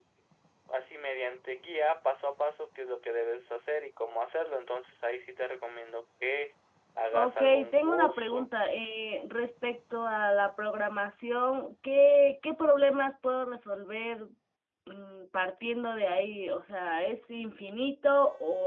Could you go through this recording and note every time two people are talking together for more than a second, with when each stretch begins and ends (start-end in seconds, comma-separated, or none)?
7.2-8.5